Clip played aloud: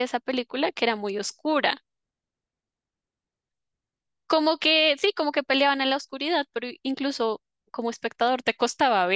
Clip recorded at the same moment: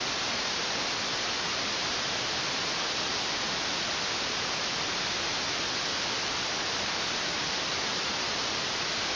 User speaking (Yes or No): No